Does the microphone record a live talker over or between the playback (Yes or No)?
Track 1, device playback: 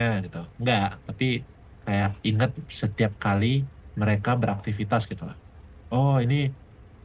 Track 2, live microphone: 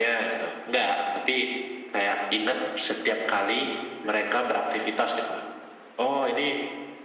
No